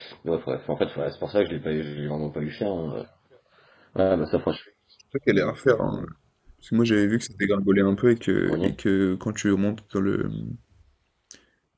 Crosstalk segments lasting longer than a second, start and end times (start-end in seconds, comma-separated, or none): none